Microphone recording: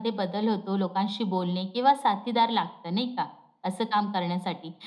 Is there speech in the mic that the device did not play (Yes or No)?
No